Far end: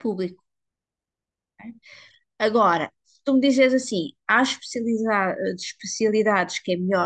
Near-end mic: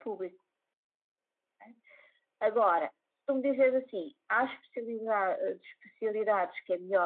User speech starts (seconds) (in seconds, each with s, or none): none